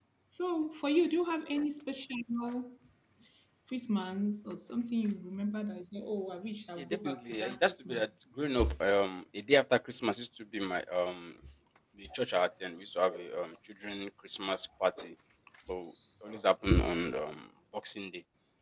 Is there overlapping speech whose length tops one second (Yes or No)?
Yes